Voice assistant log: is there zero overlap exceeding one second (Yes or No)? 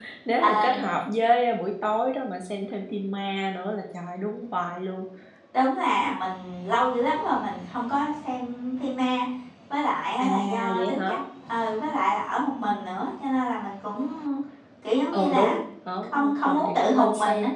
No